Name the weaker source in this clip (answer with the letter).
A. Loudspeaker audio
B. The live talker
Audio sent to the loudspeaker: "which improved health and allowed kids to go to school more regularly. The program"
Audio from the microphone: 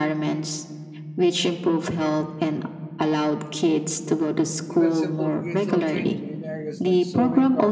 B